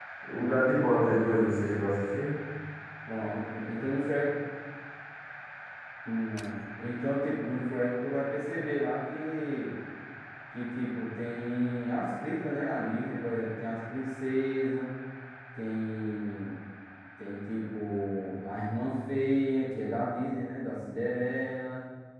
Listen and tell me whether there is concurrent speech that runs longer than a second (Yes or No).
No